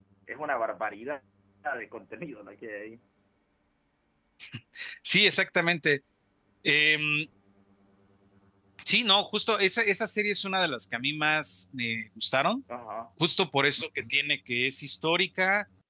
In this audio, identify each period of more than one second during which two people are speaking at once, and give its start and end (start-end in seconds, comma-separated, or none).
none